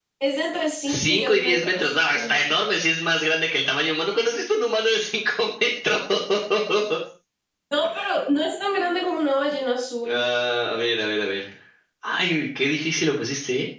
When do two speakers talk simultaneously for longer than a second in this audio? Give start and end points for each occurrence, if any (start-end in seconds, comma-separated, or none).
0.9-2.4